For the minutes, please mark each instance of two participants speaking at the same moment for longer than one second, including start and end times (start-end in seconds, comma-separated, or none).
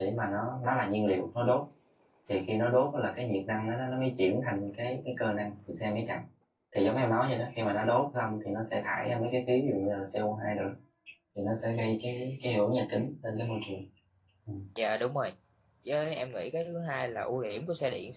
none